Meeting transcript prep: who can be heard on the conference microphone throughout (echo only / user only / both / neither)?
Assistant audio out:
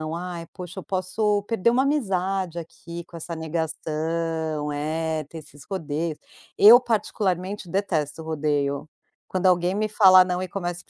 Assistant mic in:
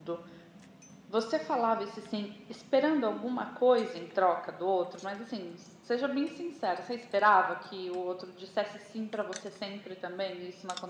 user only